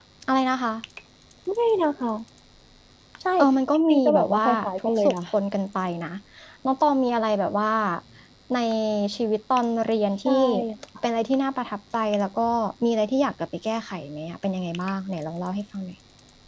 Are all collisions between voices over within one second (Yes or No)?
No